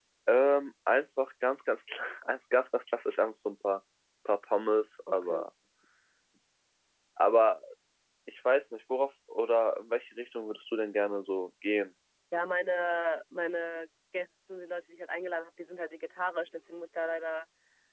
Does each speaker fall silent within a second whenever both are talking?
Yes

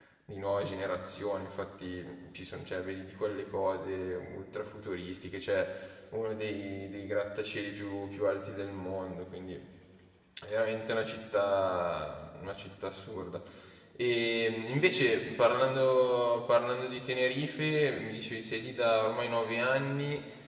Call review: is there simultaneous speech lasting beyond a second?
No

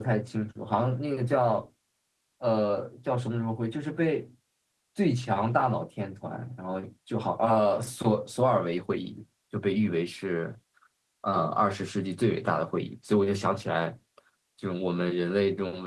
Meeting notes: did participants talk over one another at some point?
No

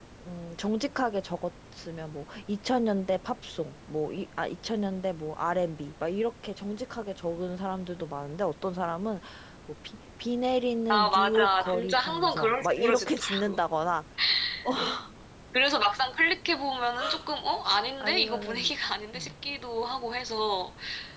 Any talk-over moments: Yes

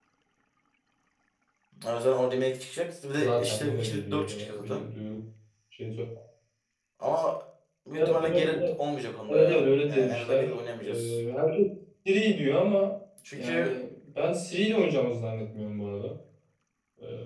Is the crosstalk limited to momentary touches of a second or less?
No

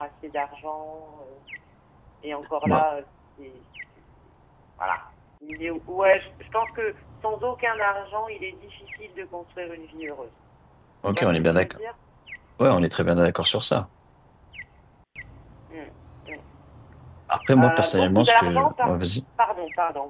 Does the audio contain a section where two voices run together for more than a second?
Yes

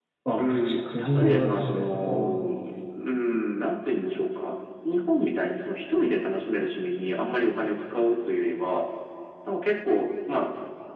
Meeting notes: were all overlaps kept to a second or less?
No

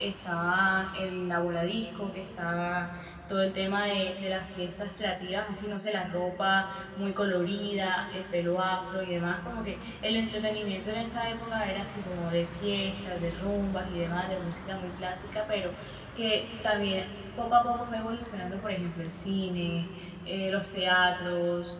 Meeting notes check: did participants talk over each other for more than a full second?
No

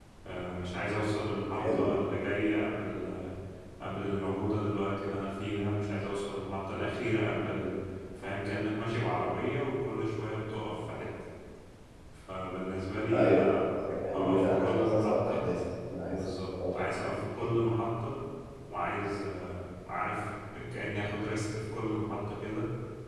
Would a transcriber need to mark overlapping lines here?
Yes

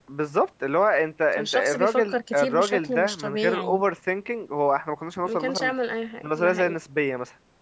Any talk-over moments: Yes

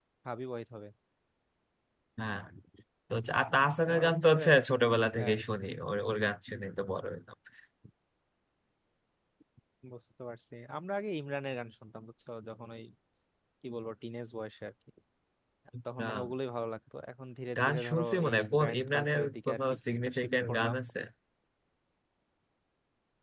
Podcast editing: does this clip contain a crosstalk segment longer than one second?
Yes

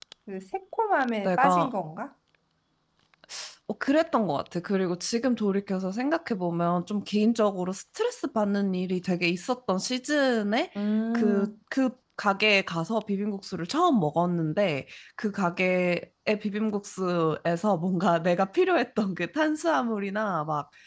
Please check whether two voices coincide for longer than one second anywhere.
No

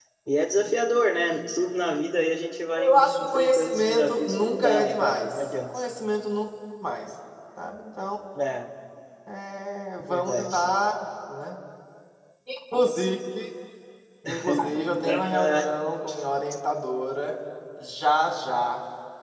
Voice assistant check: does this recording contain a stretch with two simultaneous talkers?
Yes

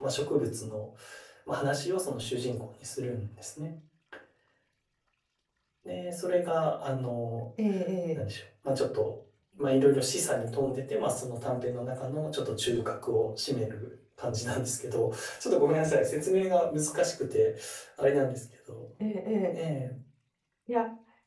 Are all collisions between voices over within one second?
Yes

